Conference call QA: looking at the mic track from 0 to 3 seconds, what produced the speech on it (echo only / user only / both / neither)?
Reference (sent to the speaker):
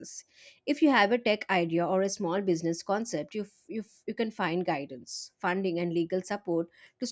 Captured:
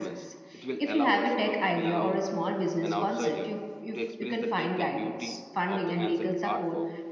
both